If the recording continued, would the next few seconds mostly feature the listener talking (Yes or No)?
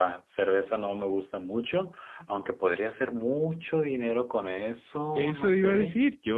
Yes